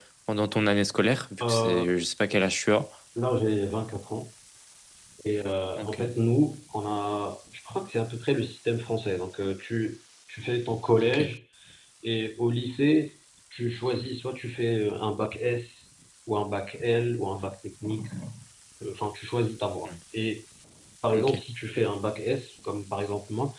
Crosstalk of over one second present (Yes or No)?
No